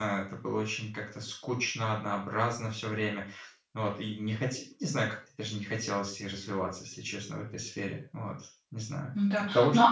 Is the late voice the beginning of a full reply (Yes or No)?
Yes